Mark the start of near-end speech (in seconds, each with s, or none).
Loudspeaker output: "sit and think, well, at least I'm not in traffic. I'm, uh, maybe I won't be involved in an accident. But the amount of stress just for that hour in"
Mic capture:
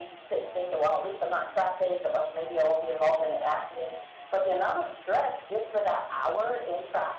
none